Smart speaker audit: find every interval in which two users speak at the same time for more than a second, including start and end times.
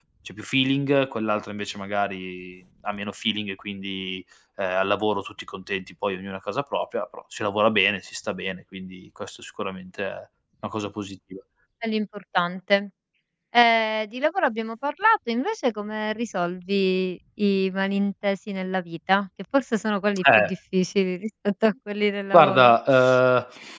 none

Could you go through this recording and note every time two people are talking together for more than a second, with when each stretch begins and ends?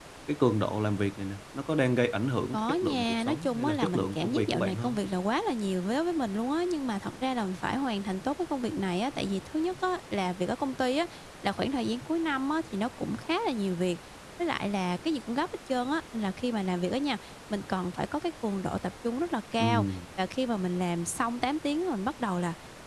2.5-5.0

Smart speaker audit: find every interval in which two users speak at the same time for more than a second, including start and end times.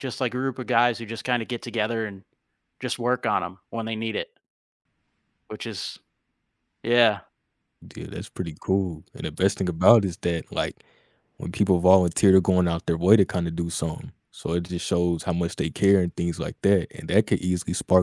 none

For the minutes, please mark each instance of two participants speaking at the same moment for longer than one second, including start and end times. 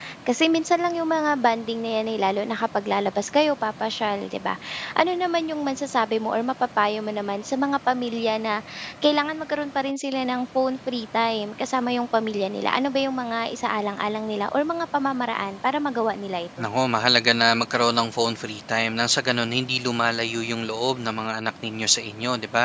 none

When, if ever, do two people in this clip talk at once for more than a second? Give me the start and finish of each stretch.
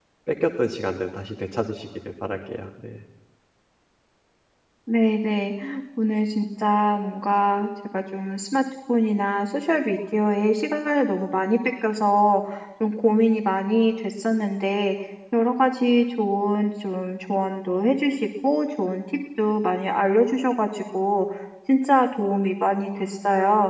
none

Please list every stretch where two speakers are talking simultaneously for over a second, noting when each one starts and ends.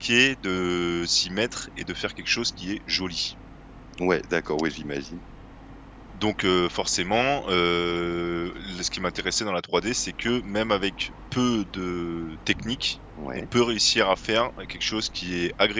none

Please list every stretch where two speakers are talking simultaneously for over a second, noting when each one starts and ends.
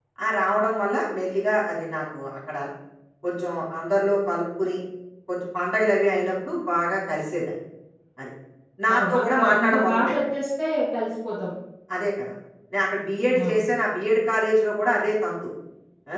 8.9-10.2

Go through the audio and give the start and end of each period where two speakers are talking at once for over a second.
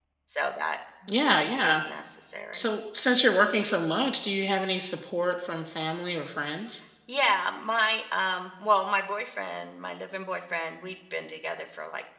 none

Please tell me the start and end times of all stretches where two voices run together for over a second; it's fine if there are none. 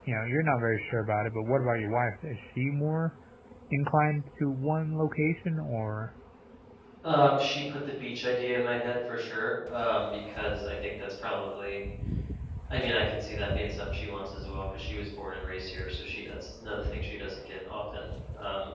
none

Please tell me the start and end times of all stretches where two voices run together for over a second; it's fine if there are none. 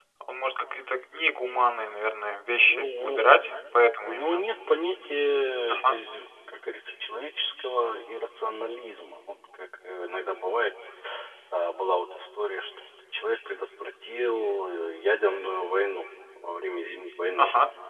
none

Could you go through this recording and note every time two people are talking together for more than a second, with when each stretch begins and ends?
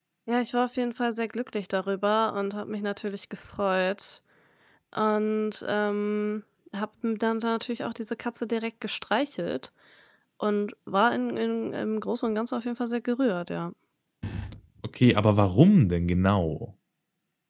none

